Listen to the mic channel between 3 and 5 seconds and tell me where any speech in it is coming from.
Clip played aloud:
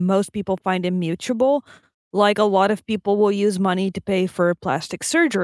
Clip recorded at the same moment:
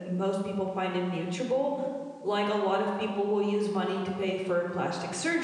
echo only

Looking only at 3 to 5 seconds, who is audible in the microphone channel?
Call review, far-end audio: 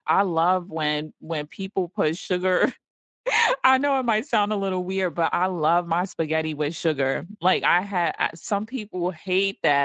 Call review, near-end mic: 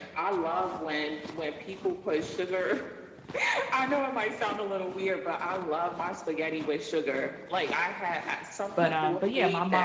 echo only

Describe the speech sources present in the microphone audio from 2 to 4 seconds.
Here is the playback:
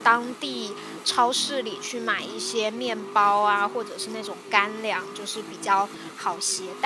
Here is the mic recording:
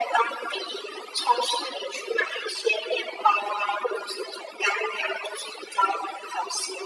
echo only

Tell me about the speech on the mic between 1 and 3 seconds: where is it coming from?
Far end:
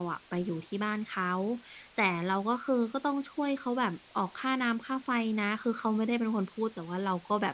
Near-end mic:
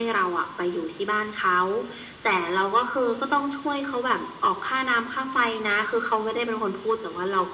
echo only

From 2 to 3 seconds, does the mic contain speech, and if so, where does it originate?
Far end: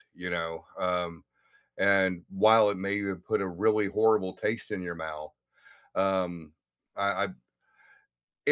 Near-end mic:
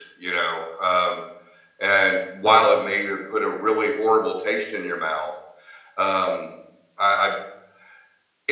echo only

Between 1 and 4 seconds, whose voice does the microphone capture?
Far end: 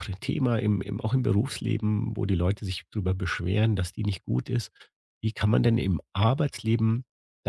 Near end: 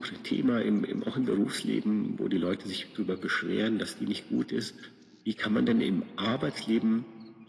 echo only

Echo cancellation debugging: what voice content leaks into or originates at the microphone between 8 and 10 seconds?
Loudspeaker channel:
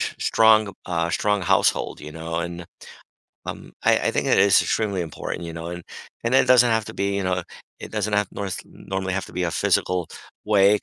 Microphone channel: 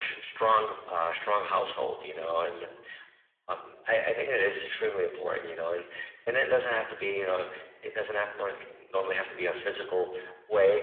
echo only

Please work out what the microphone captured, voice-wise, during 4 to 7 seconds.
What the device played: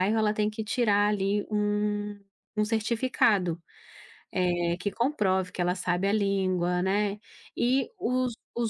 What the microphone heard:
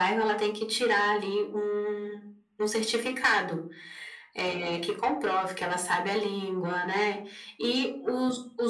echo only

